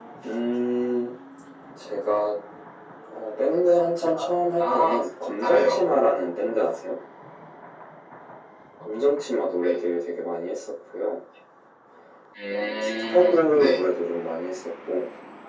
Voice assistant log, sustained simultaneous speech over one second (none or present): present